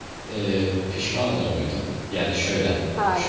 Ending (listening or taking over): listening